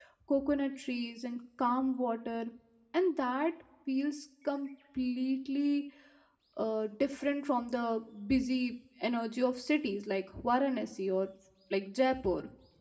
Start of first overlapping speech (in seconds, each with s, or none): none